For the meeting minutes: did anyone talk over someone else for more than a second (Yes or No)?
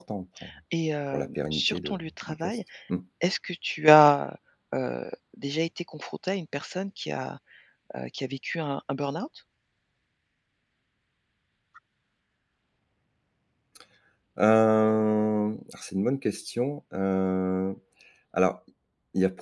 Yes